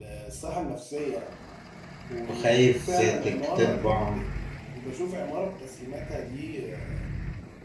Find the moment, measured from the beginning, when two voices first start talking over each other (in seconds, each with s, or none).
2.3 s